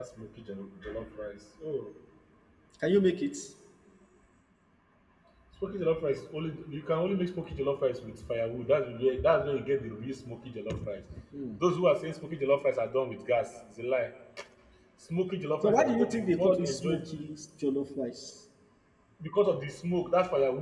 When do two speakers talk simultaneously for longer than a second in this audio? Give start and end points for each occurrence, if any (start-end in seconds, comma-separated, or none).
15.6-16.9